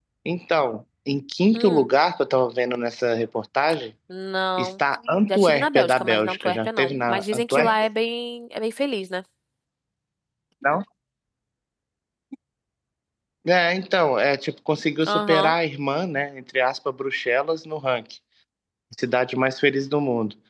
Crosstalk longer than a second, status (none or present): present